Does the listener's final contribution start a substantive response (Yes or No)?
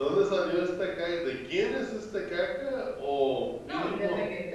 Yes